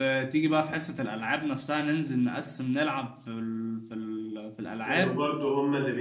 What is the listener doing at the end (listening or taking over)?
taking over